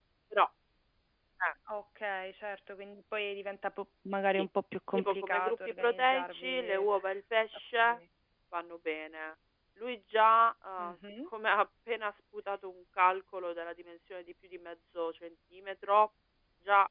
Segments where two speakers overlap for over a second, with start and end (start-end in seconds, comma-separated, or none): 4.9-6.8